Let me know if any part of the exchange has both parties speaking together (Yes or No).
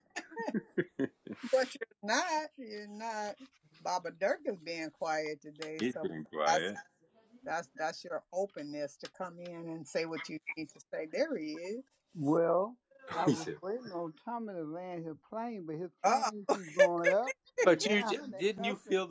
Yes